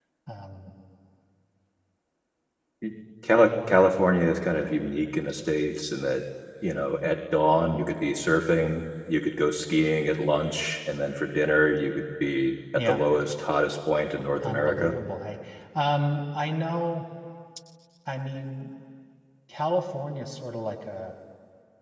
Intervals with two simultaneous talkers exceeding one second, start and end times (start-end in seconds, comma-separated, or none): none